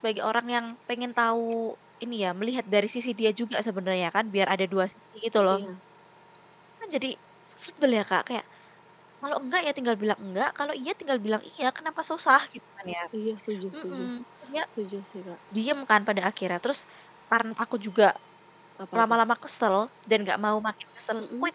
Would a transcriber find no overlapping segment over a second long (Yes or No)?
Yes